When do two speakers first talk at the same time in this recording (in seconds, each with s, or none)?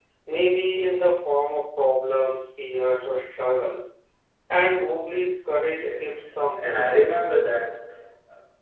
5.7 s